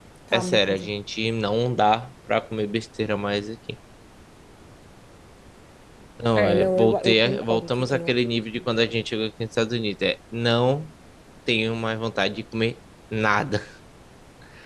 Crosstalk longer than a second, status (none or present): present